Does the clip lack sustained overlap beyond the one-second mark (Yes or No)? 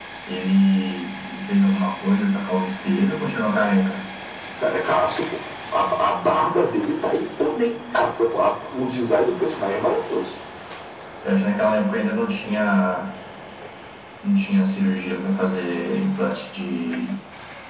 Yes